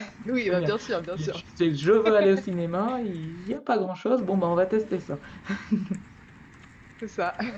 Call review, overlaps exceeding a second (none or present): none